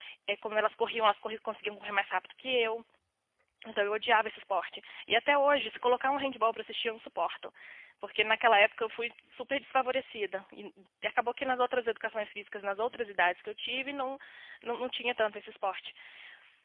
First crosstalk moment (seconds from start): none

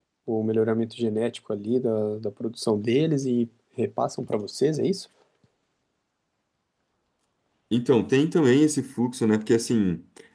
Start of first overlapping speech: none

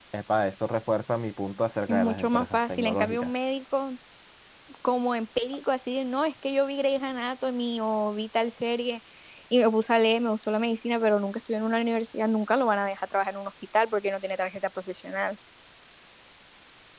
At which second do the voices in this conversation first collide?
2 s

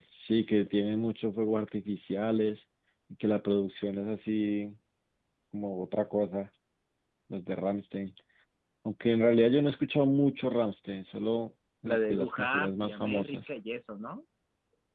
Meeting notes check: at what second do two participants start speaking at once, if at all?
12 s

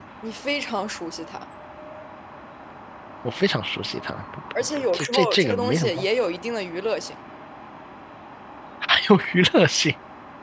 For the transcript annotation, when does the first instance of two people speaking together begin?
5 s

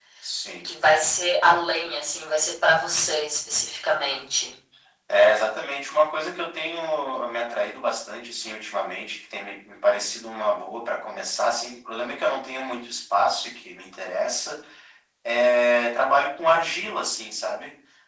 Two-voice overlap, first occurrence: none

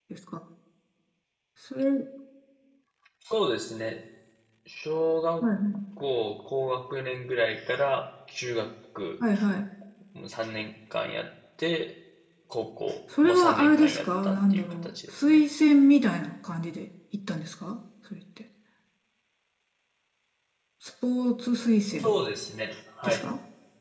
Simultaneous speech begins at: 13 s

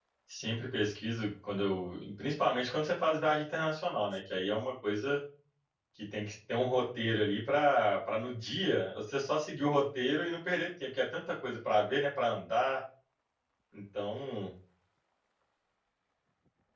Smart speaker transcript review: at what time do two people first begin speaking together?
none

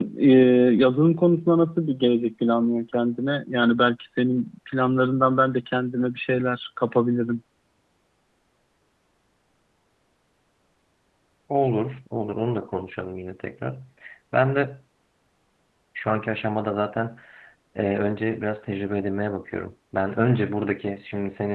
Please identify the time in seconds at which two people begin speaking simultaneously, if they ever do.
none

